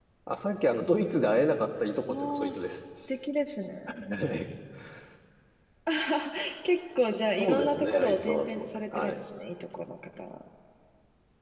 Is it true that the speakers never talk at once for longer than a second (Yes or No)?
No